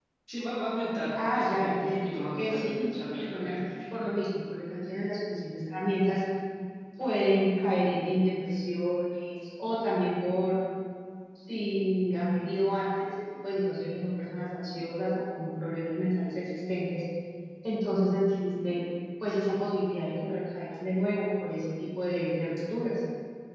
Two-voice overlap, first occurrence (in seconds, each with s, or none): 1.2 s